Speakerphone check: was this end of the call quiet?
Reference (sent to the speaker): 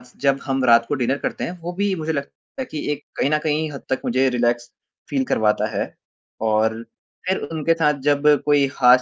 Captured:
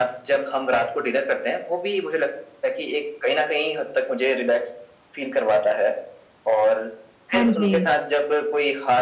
No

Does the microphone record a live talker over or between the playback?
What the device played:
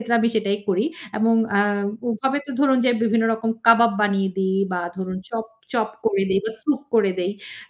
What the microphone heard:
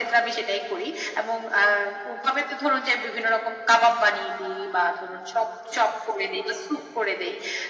No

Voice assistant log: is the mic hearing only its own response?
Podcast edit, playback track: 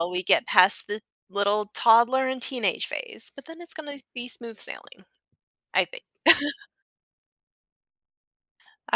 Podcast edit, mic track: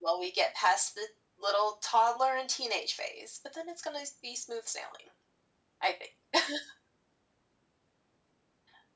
Yes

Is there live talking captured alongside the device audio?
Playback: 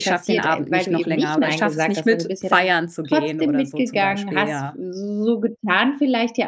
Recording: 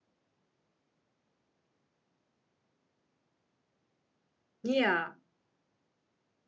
Yes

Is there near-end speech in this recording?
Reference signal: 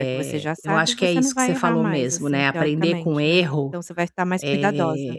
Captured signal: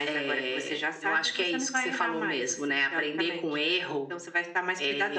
No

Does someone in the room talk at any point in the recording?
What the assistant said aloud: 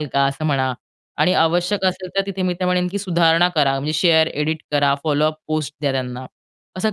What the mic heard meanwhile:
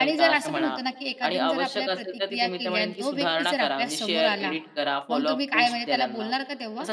Yes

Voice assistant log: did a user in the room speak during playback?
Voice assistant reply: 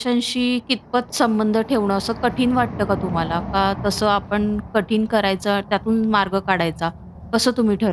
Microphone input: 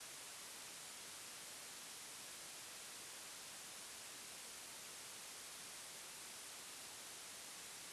No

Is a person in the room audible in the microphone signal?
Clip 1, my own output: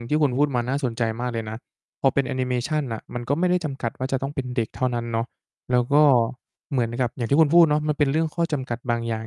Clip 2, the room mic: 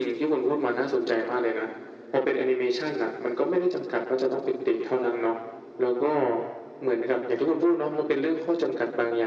No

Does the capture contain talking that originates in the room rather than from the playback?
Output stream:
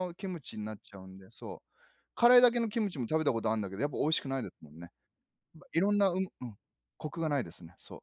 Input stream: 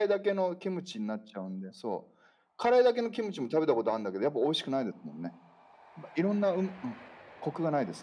No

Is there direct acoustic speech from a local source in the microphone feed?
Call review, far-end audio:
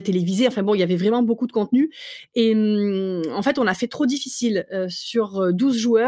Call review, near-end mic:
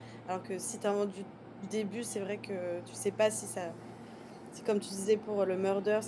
Yes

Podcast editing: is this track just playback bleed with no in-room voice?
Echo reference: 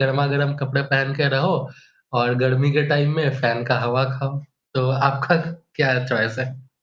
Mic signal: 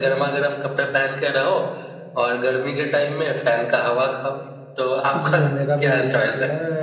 No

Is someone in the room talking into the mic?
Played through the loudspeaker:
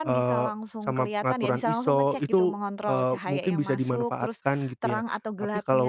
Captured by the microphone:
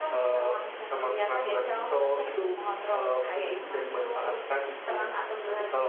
No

